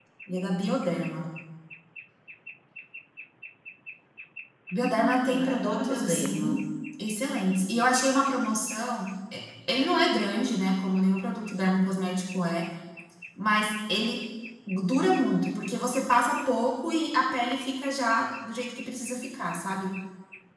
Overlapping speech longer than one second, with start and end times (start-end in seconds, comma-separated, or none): 4.8-6.5